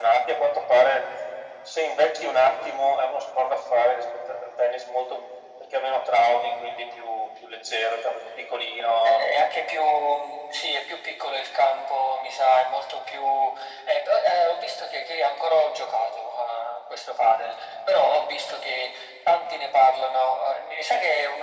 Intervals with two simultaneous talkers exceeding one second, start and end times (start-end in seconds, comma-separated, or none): none